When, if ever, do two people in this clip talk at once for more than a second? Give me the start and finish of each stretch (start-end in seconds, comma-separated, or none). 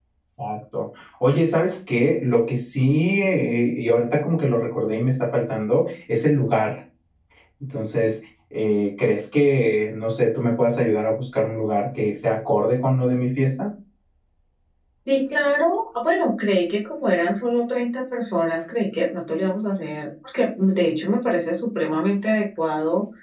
none